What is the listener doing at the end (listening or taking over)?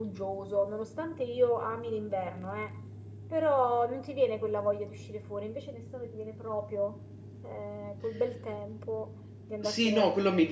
taking over